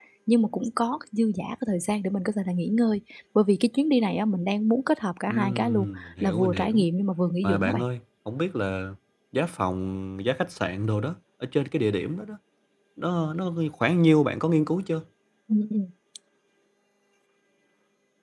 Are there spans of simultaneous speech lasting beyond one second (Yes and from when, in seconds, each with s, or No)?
Yes, from 5.3 s